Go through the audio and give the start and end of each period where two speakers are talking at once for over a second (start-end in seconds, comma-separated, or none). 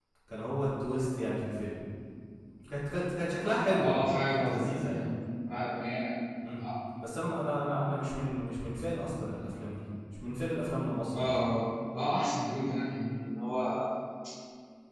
3.7-4.9